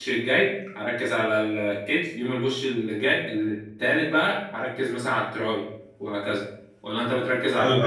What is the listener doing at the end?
taking over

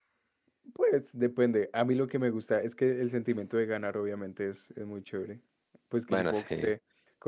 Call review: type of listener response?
listening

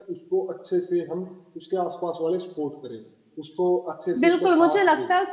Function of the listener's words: taking over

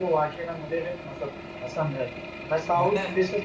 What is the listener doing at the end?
listening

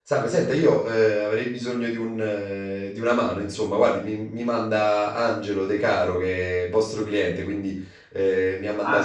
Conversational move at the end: taking over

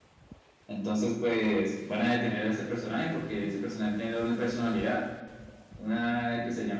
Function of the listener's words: listening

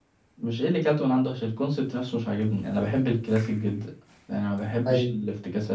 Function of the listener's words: listening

